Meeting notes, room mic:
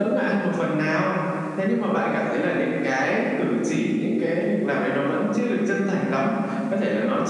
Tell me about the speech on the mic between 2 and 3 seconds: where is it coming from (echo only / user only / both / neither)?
echo only